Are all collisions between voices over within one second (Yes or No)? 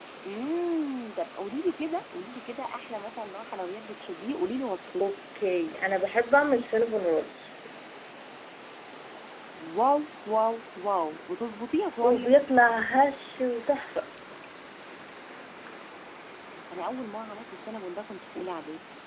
Yes